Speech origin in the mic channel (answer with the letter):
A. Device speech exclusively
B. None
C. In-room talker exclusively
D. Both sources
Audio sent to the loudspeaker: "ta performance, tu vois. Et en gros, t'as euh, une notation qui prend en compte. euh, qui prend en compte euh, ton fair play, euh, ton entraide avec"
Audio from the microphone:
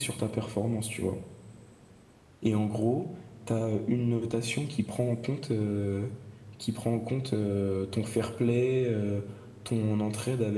A